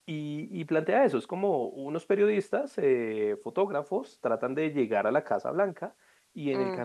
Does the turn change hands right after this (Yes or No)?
No